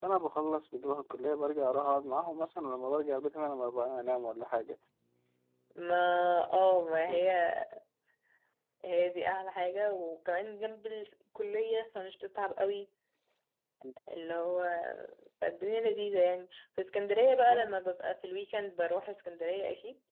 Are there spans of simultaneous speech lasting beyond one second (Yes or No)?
No